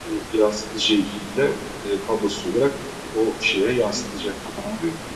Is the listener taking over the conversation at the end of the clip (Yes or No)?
Yes